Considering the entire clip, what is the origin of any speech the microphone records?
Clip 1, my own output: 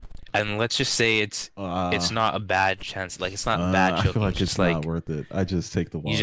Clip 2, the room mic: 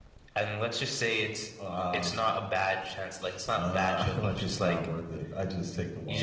echo only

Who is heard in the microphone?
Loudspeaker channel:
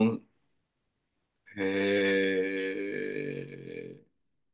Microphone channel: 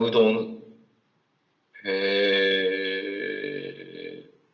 echo only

